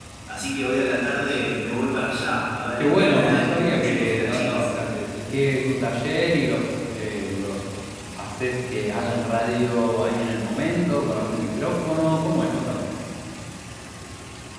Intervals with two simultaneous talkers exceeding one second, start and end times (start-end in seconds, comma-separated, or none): 2.8-4.7